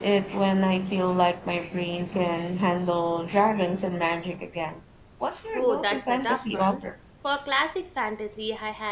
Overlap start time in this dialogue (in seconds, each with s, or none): 5.5 s